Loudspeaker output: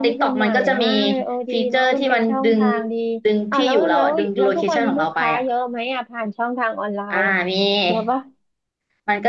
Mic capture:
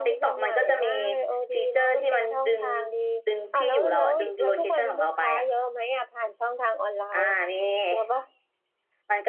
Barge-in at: none

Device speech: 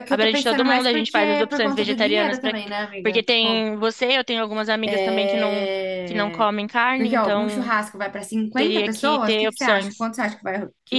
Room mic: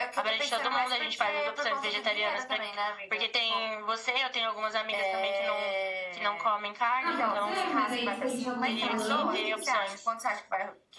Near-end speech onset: 7 s

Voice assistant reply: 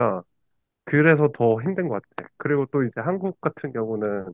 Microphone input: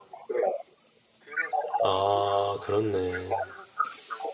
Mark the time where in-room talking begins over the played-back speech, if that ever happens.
2 s

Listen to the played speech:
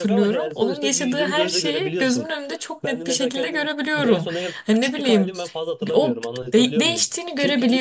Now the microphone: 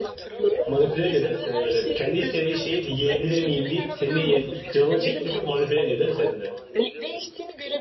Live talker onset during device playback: 1 s

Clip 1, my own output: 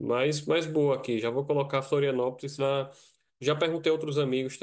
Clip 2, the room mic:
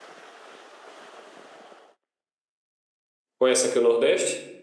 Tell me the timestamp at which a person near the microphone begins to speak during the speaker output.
3 s

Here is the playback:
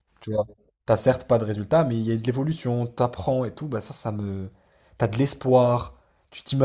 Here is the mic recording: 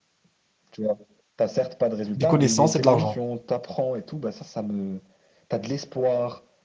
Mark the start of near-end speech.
2 s

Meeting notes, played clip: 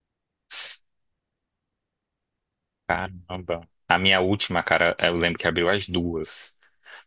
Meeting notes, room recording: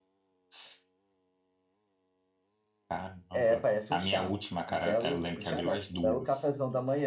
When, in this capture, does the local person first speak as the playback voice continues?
3 s

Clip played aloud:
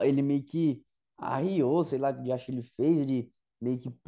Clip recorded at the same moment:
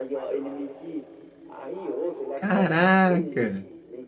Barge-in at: 2 s

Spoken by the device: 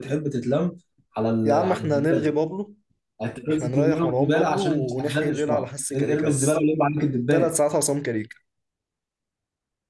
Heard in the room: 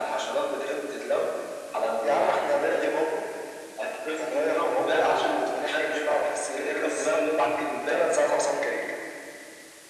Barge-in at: none

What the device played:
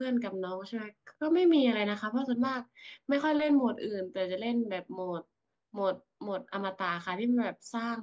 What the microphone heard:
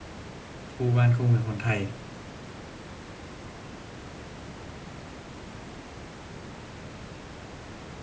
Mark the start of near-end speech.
1 s

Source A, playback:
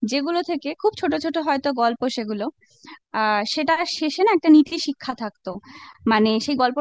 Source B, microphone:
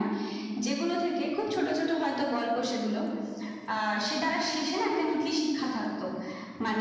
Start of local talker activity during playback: none

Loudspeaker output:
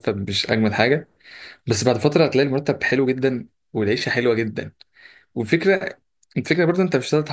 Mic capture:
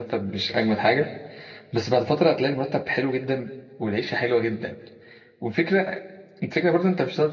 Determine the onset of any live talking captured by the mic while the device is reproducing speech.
none

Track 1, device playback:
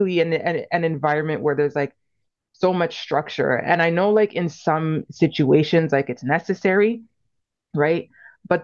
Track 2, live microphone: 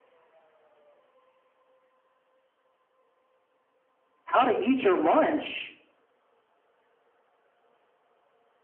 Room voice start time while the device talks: 4 s

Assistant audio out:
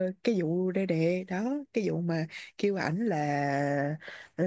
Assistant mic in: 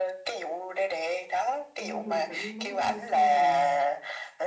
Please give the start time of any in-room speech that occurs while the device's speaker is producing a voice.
2 s

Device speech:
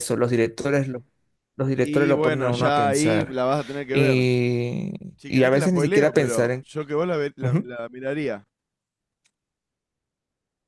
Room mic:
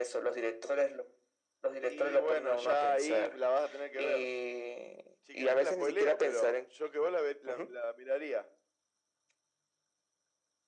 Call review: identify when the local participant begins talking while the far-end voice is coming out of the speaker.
none

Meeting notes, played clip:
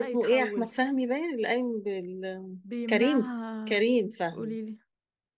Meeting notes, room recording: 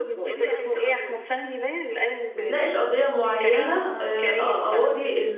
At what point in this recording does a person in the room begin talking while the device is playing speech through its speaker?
2 s

